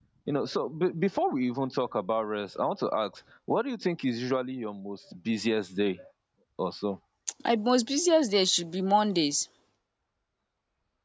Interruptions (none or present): none